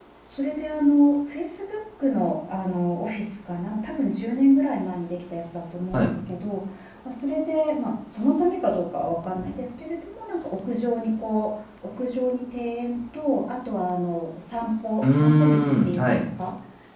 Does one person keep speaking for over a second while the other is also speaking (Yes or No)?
Yes